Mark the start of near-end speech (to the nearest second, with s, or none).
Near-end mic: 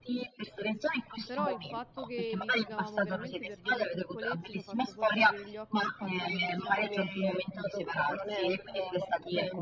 1 s